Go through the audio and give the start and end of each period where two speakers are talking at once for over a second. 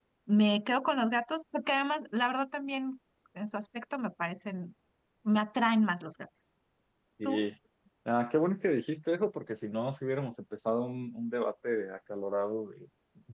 none

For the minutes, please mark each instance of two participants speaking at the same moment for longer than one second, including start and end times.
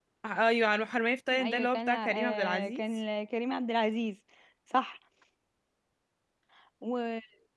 1.4-2.8

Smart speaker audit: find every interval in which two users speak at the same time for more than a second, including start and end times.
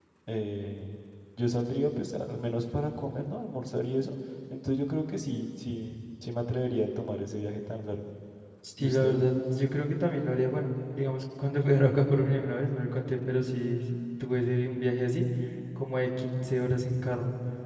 none

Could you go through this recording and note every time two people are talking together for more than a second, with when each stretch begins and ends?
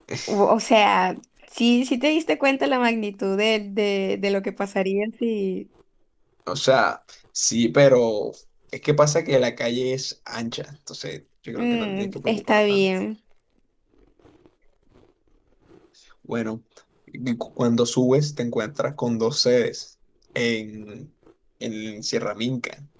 11.6-12.9

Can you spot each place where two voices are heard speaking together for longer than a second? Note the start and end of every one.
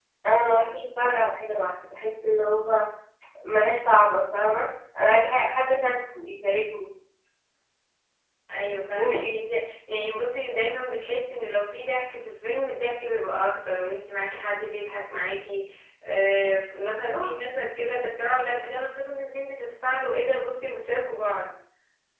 none

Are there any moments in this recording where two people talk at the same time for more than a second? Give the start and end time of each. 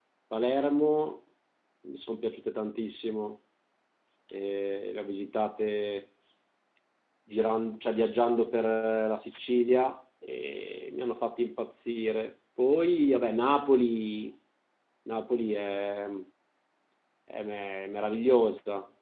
none

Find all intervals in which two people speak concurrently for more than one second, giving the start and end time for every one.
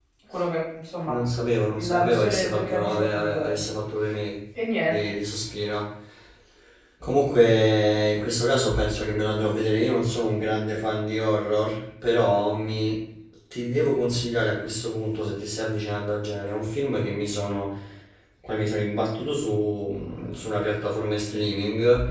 1.8-3.6

